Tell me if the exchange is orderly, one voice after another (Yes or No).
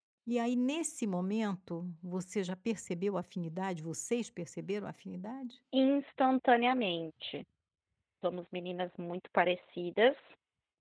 Yes